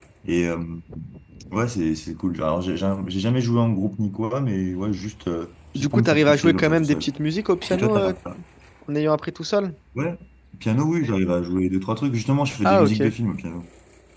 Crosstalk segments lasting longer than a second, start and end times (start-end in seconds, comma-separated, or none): 5.8-7.1